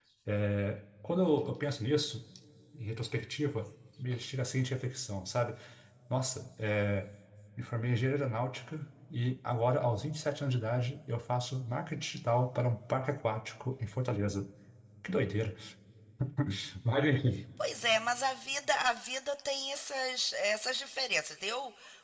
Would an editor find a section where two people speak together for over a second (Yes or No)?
No